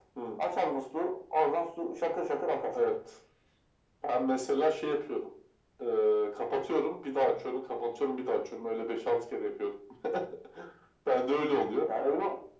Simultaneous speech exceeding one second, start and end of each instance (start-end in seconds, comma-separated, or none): none